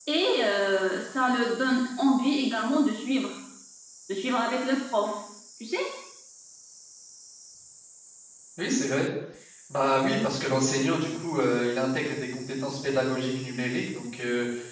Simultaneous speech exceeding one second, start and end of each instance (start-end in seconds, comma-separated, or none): none